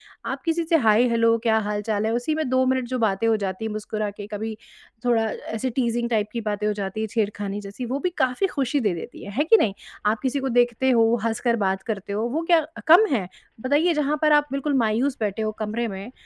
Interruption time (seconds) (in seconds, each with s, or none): none